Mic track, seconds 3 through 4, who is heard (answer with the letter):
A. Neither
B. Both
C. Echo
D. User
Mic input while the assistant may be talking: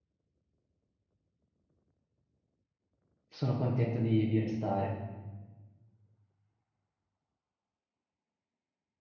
D